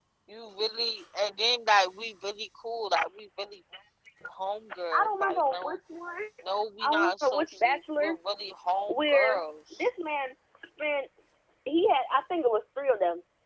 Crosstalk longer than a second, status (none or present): present